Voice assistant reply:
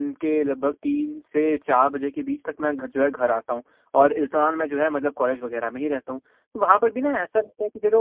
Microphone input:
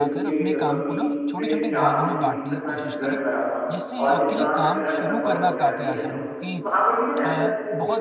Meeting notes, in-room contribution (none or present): present